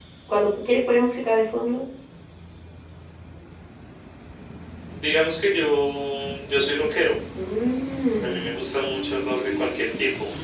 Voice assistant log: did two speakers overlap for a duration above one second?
No

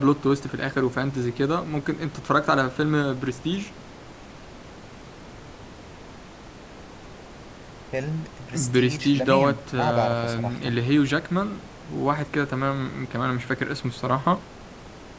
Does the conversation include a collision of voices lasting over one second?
Yes, from 8.5 s

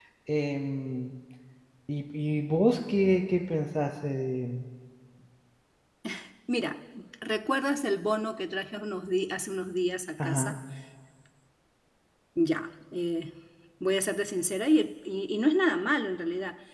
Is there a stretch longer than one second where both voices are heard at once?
No

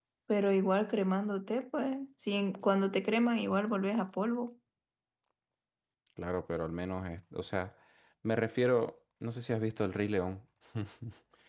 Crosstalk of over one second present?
No

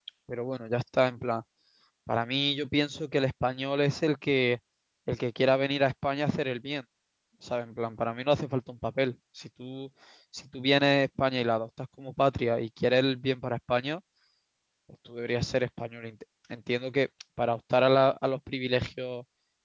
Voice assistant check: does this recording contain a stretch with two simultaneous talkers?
No

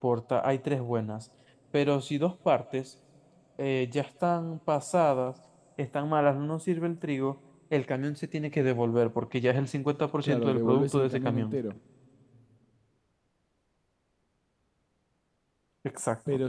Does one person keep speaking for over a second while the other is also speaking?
Yes, from 10.2 s

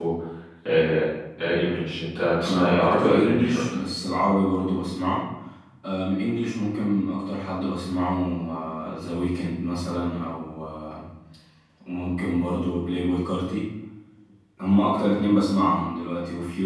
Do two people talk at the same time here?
Yes, from 2.4 s

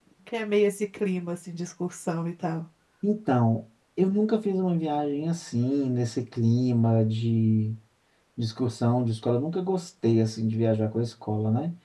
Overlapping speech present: No

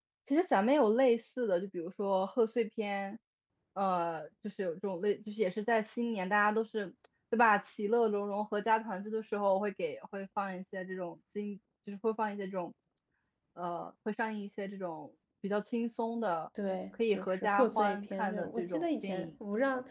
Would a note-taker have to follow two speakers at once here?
Yes, from 17.1 s

